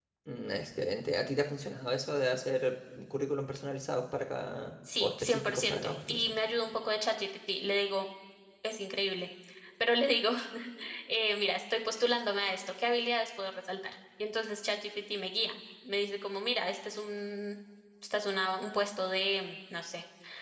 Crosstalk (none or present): present